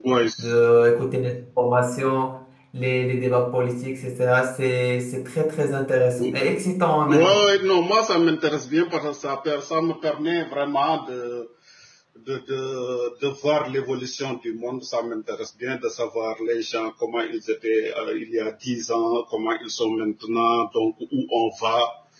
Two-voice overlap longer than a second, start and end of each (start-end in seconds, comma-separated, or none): none